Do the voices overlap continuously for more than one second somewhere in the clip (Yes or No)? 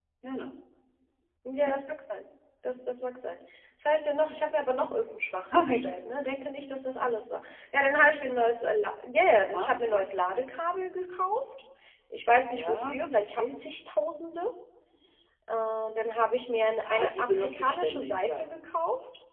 Yes